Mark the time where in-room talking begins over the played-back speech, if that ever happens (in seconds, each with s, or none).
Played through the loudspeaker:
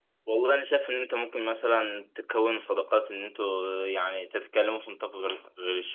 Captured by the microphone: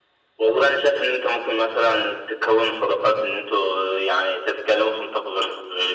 none